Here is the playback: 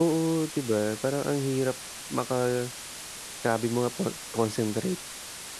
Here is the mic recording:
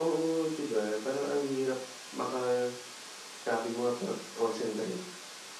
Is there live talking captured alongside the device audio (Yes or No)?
No